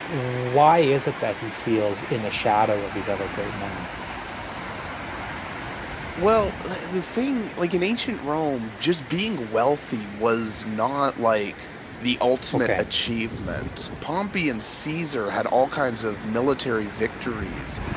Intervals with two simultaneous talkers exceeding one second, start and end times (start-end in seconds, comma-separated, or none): none